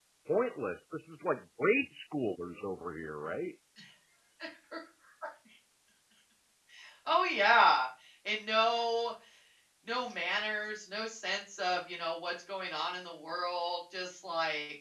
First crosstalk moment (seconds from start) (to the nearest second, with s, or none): none